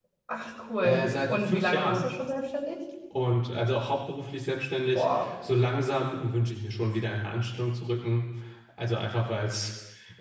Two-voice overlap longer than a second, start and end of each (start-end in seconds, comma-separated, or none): 0.8-2.1